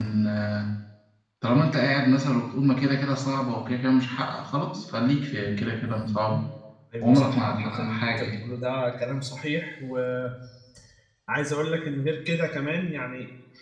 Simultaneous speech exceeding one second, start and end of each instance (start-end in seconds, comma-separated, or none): 7.0-8.4